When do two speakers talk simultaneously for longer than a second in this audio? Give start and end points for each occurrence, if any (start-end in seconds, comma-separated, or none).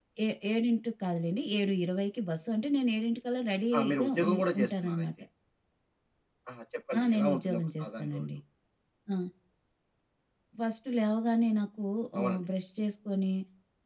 3.8-5.1, 7.0-8.2